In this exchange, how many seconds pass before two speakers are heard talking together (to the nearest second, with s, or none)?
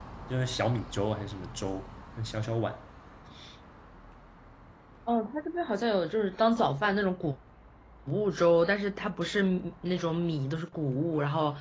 none